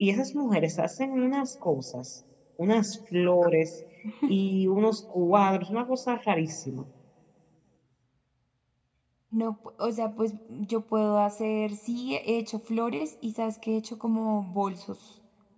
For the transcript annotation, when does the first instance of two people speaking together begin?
none

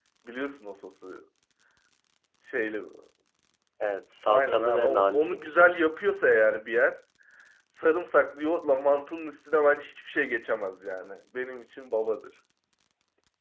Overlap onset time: 4.3 s

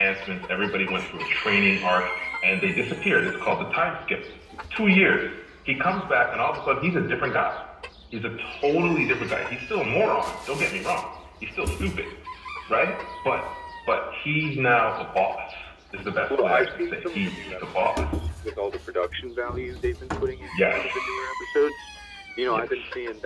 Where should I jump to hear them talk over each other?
16.3 s

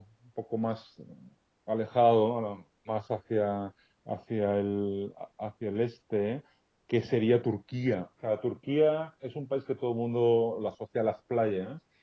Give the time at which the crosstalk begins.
none

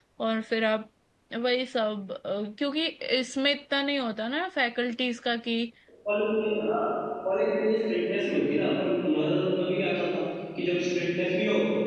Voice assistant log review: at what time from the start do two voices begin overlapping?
none

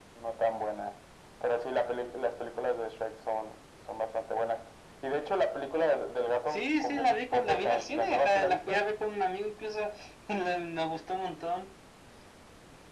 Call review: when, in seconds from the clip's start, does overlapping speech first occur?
6.5 s

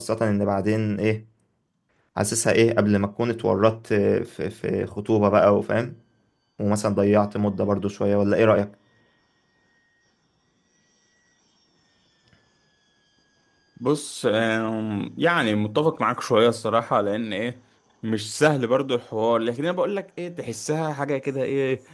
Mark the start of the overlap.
none

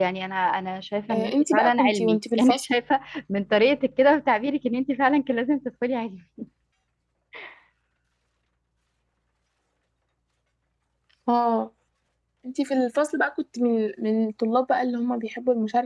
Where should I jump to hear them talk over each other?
1.1 s

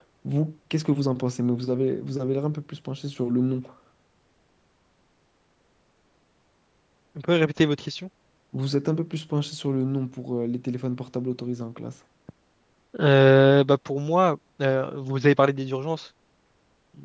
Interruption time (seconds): none

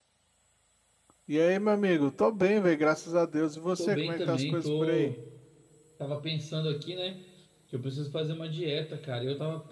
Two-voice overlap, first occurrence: 3.8 s

